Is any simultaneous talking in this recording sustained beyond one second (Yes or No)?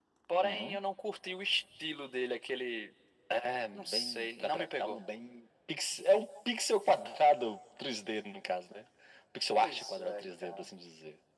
Yes